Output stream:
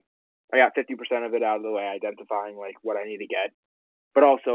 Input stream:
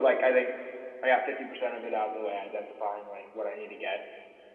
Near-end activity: none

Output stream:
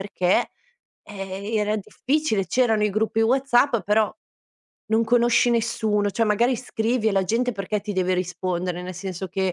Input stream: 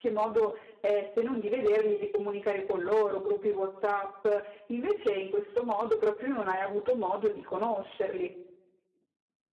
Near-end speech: present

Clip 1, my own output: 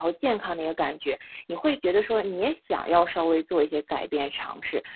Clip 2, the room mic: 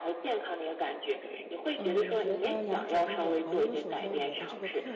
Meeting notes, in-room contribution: present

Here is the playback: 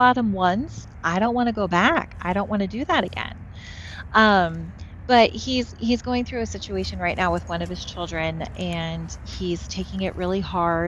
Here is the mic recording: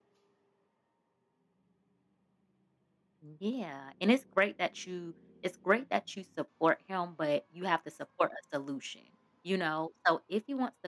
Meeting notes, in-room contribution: present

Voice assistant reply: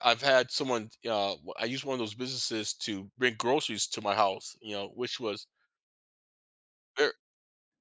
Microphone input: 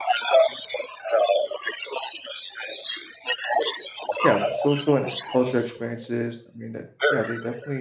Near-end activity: present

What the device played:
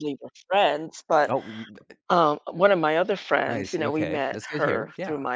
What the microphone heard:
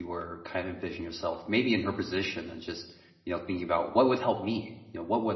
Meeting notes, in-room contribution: present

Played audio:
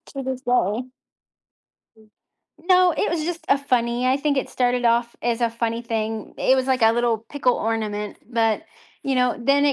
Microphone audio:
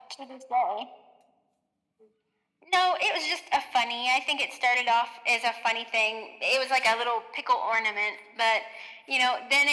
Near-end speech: none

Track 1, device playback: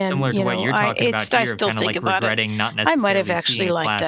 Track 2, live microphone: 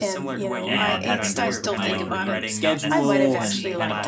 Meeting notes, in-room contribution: present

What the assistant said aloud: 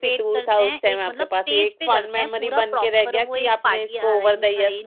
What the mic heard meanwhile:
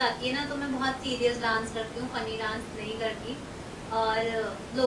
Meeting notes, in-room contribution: present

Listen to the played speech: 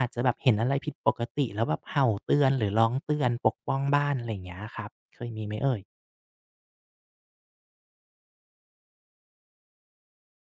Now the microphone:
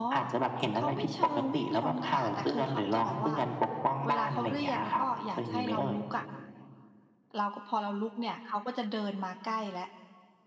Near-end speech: present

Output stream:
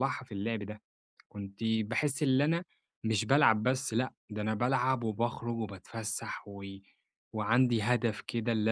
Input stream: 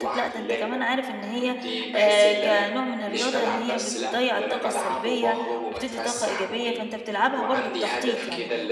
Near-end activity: present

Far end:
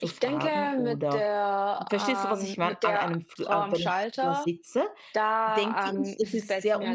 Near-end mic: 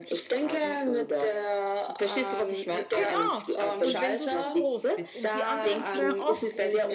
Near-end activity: present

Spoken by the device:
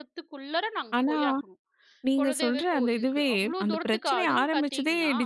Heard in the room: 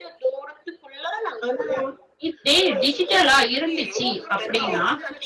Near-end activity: present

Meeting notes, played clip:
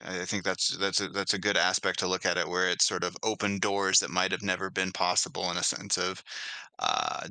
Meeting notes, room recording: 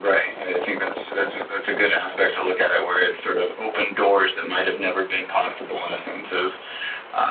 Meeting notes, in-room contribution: none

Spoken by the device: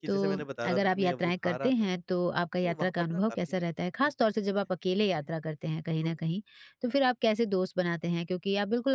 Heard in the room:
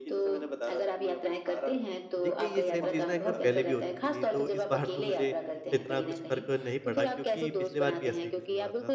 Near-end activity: present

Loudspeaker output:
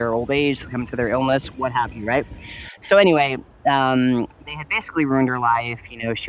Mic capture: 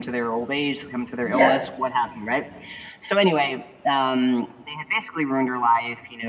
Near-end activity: present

